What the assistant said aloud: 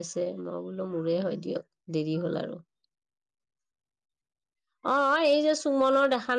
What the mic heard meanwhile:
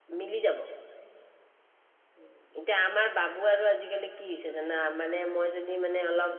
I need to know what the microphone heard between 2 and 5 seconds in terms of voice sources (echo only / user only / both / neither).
user only